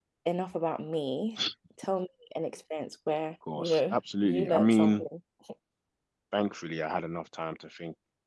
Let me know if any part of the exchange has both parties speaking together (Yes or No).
Yes